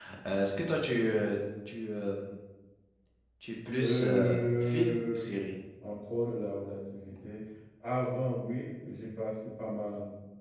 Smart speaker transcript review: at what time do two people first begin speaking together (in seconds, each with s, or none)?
3.8 s